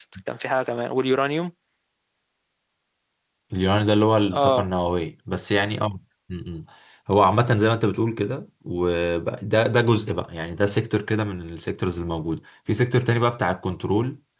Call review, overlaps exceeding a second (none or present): none